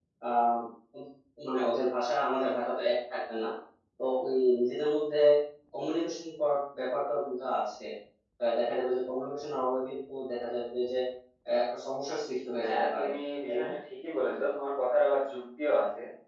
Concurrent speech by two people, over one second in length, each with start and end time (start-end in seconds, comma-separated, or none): none